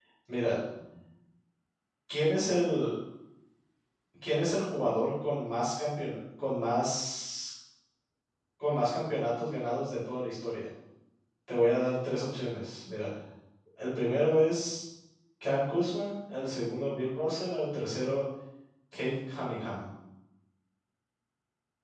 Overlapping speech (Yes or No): No